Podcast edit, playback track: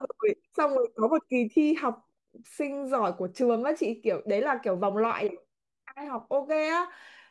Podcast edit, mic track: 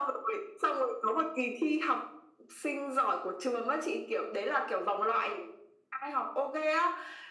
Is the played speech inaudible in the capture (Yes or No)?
No